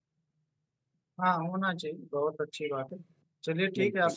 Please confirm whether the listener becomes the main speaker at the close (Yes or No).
No